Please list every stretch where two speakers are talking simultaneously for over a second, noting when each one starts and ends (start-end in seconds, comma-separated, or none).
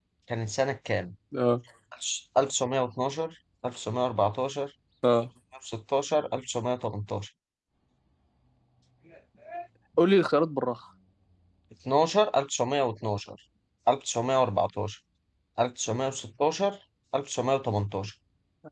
none